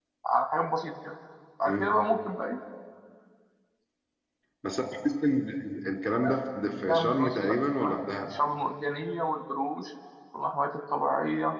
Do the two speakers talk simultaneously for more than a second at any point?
Yes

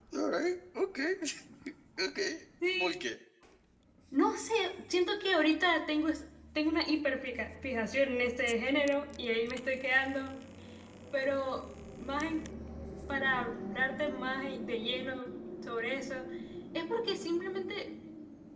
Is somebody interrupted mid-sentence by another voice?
No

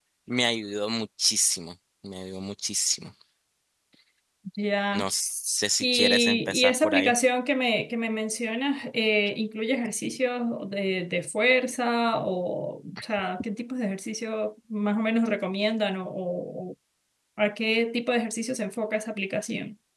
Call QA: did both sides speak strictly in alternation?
No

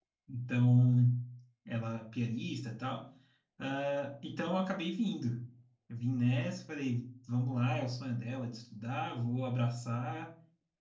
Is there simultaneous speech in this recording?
No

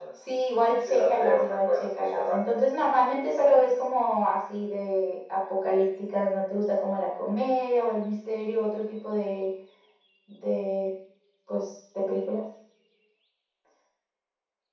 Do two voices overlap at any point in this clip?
Yes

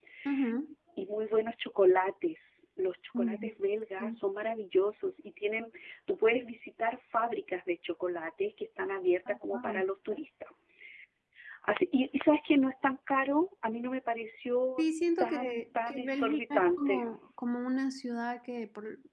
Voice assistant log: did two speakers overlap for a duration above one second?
Yes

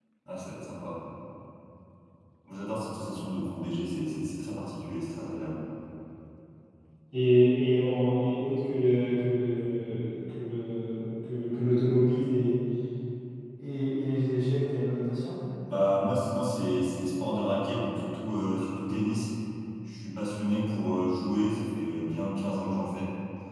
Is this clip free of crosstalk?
Yes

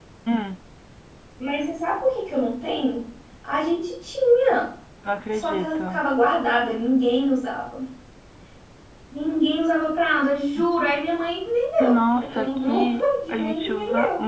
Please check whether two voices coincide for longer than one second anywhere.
Yes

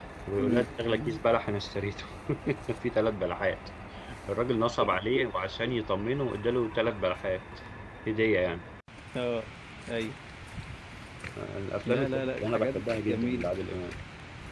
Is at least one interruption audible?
Yes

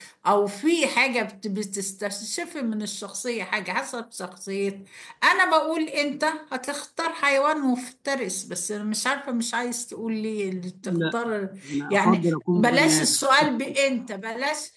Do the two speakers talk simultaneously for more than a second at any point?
Yes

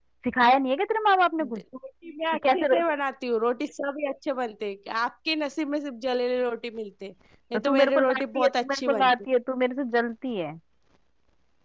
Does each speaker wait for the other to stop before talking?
No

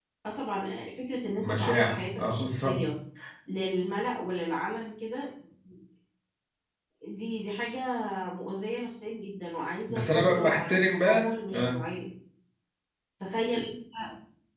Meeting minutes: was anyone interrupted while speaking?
Yes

